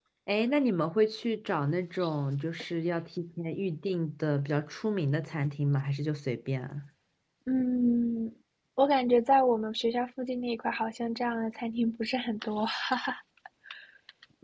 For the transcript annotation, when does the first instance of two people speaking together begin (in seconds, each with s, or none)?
none